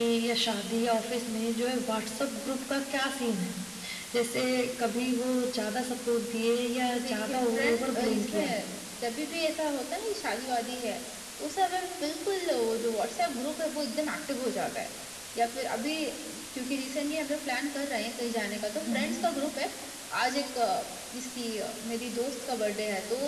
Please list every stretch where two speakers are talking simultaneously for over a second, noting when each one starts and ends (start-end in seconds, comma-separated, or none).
7.0-8.5